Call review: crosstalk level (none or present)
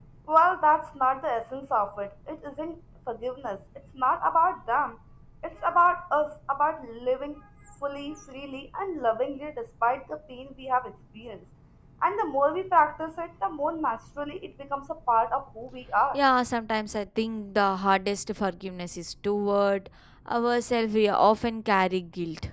none